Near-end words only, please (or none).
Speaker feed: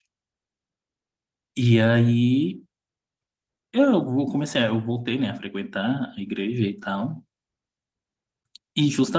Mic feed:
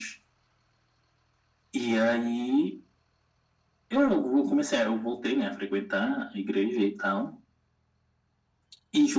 none